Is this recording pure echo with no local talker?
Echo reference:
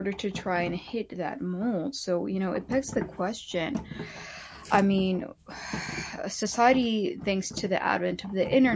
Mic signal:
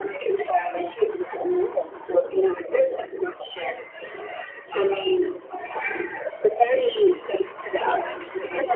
Yes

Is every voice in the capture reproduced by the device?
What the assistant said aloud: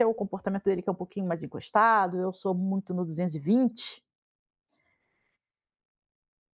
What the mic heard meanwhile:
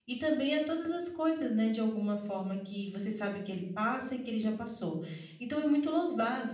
No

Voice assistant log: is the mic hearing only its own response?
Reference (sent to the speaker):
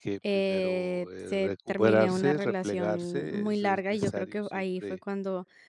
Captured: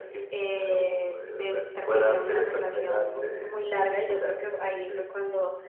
No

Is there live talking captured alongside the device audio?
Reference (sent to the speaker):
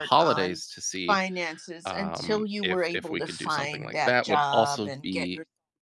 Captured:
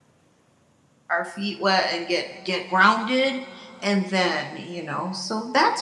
Yes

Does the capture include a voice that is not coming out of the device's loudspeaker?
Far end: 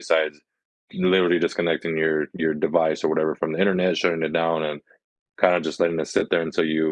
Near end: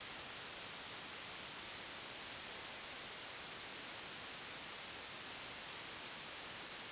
No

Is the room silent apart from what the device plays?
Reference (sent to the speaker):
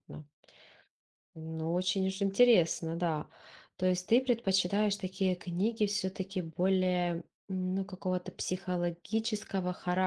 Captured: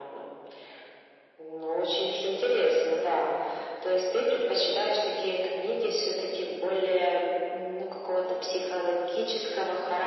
Yes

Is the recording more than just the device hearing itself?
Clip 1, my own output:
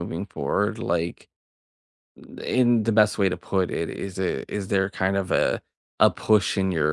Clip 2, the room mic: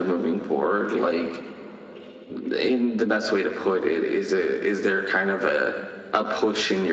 No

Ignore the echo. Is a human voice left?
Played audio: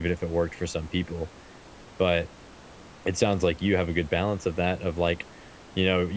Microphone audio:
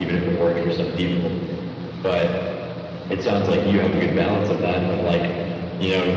No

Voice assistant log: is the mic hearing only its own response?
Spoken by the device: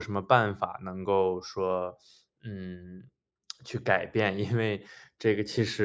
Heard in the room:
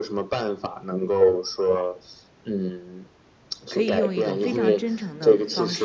No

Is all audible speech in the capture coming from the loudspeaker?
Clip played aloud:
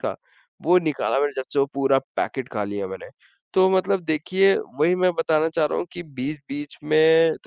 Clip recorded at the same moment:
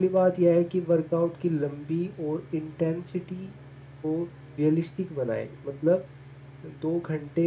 No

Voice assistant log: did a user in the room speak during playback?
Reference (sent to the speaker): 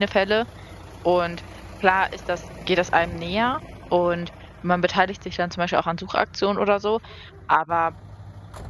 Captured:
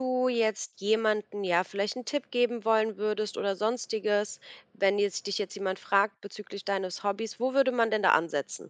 Yes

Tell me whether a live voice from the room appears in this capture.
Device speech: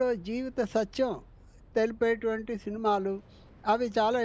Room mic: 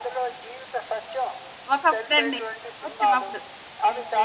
Yes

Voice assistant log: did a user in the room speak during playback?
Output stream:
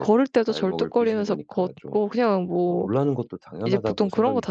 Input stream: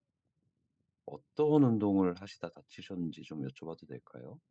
Yes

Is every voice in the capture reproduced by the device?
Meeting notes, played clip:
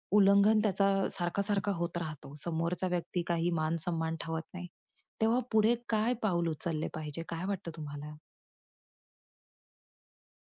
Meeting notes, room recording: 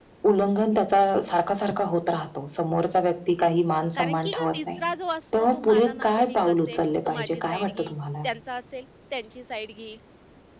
No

